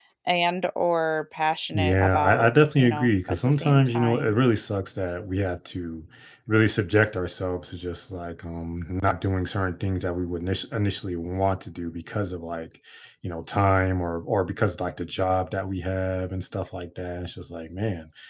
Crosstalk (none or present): present